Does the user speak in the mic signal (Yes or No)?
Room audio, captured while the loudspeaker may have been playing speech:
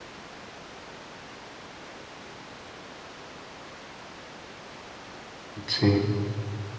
Yes